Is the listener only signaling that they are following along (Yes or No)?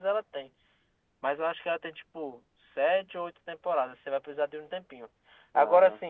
Yes